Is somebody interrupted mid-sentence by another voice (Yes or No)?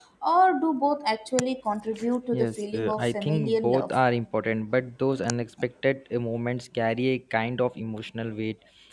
Yes